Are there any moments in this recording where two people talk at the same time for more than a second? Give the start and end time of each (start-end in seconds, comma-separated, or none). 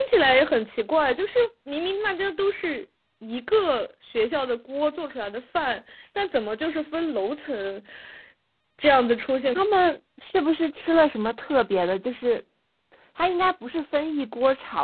none